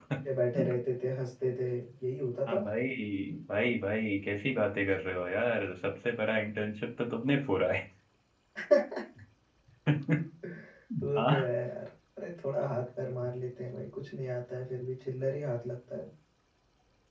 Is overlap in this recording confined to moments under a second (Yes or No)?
Yes